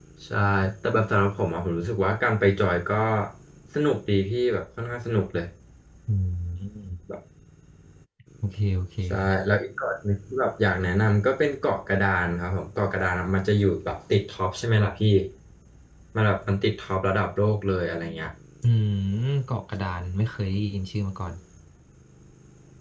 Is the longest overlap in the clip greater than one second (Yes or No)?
No